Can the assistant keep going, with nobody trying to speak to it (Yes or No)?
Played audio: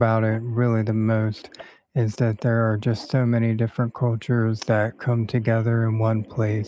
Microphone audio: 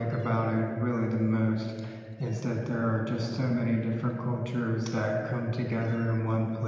Yes